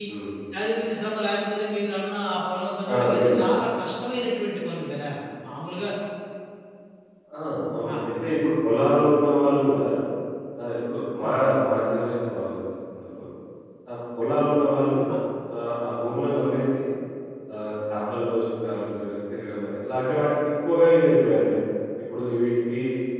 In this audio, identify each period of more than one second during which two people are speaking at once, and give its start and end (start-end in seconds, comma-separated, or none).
none